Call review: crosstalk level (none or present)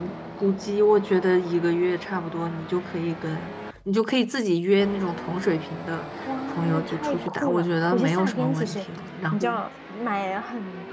present